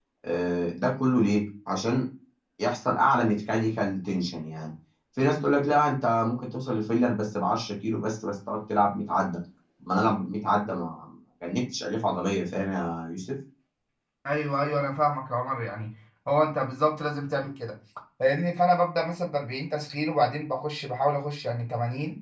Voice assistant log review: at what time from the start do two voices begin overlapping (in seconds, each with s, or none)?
none